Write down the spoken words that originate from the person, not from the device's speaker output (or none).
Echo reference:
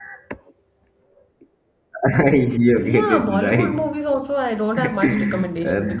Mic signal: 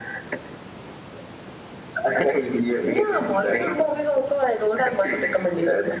none